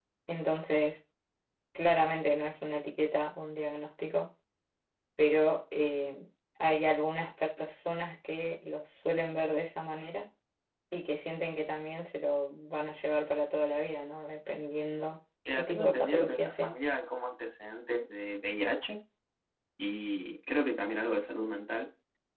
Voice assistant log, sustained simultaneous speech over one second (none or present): present